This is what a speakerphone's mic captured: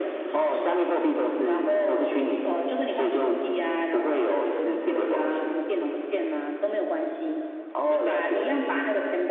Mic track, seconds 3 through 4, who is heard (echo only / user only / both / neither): echo only